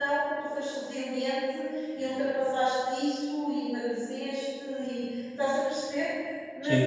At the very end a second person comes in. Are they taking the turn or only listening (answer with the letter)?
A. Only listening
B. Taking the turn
A